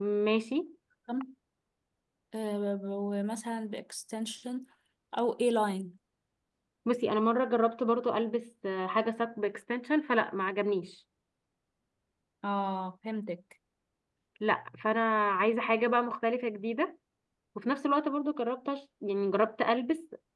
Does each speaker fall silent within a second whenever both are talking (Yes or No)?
Yes